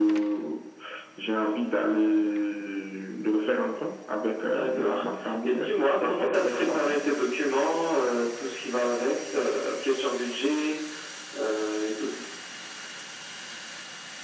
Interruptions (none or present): present